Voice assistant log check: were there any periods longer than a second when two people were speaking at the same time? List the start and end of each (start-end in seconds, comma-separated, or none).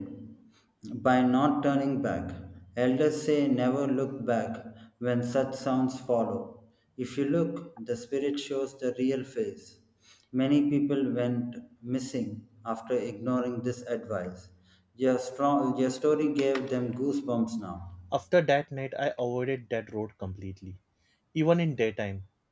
none